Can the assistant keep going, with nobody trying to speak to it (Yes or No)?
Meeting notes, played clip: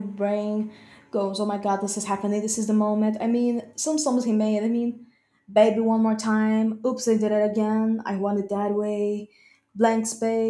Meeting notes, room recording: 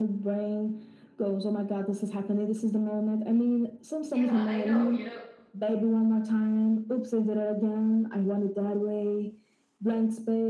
No